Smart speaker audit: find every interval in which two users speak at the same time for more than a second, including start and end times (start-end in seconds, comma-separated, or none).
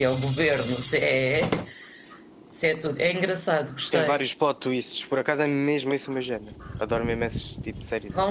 none